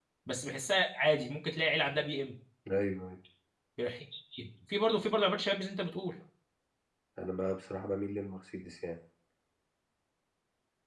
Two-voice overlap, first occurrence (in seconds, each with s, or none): none